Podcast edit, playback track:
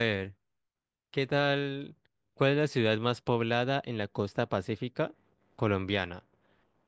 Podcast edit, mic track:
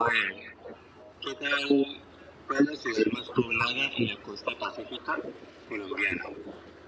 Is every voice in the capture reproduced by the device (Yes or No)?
Yes